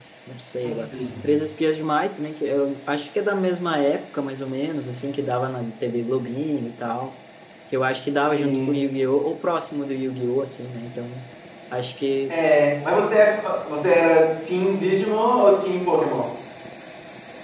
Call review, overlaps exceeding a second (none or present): none